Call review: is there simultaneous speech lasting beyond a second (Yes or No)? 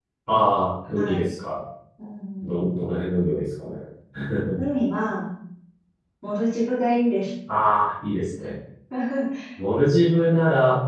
No